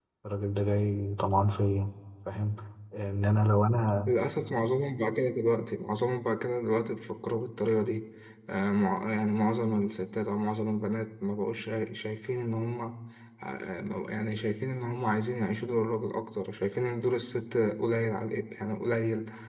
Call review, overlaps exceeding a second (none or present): none